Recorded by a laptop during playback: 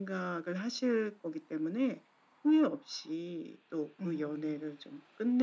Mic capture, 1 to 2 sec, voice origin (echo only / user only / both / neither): echo only